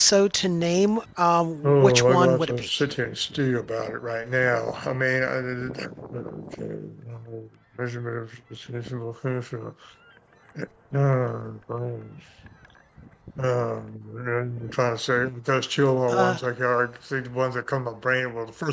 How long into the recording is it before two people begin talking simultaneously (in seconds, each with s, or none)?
1.6 s